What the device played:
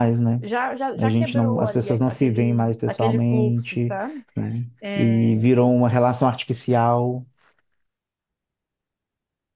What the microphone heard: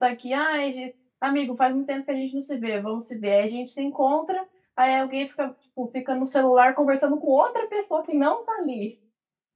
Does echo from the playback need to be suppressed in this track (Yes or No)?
No